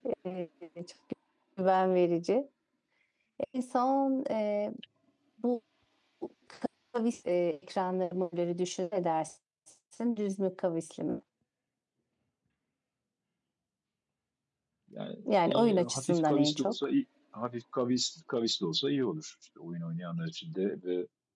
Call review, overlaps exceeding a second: present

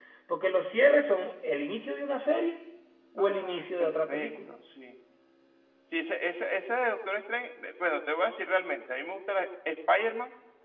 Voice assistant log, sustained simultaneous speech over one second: present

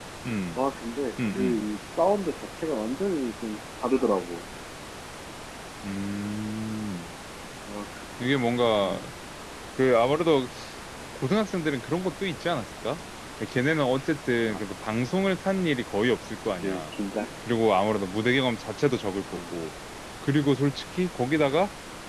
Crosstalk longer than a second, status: none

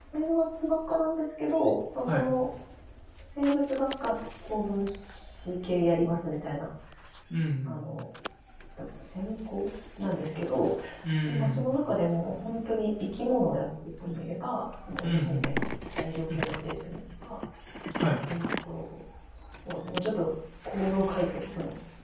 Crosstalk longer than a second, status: none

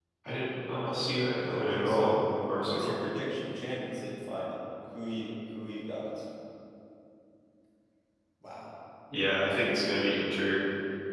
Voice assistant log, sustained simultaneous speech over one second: present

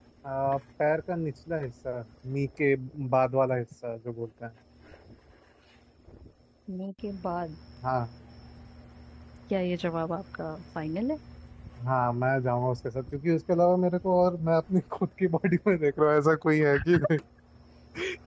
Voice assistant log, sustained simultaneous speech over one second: none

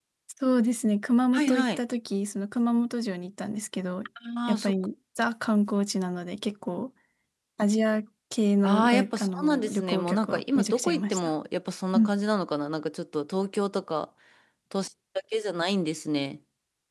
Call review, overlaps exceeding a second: present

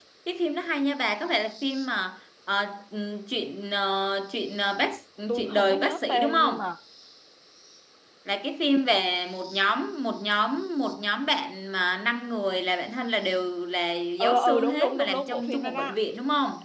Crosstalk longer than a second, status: present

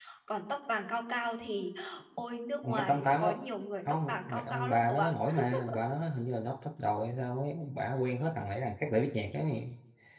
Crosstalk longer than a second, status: present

